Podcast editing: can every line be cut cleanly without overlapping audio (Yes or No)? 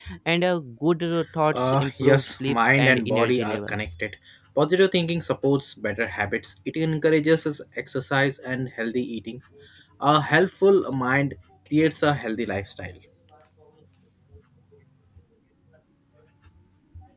No